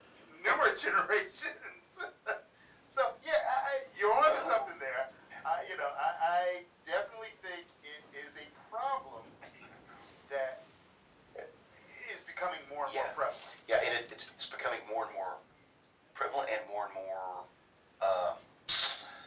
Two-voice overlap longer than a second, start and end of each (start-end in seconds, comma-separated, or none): none